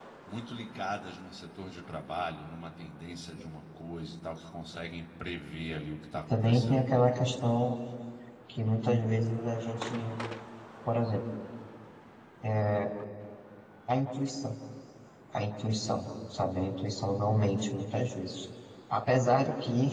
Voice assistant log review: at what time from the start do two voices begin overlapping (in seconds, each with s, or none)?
6.3 s